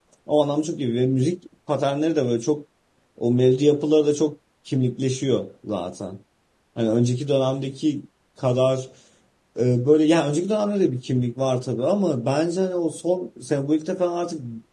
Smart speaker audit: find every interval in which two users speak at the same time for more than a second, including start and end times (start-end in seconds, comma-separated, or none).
none